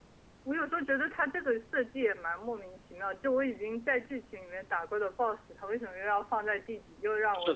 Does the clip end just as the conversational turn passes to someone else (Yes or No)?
Yes